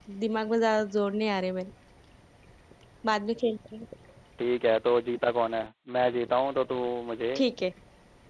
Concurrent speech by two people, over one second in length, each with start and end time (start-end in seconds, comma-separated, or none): none